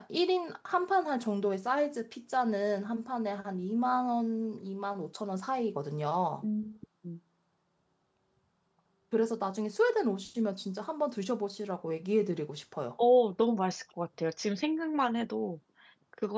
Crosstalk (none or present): none